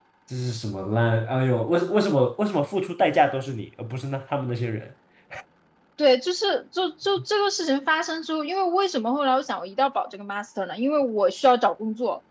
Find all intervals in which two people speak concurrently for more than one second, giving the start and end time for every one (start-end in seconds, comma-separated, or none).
none